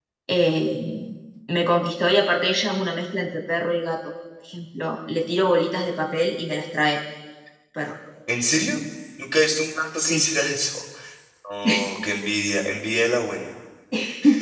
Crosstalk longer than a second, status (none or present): none